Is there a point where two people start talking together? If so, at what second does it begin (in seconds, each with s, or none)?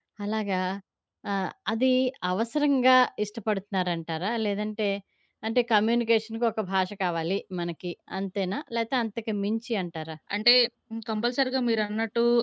none